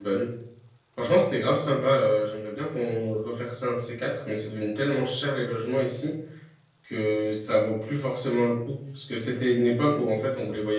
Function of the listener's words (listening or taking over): listening